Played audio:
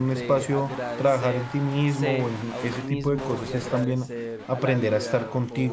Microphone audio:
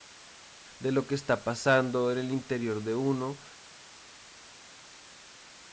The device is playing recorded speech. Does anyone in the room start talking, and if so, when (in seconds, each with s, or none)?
0.8 s